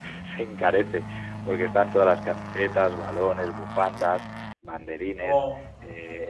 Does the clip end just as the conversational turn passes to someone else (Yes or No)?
No